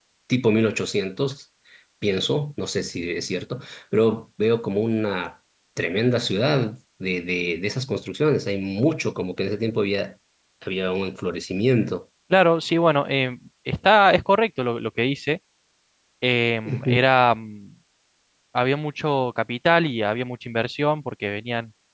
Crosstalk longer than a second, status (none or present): none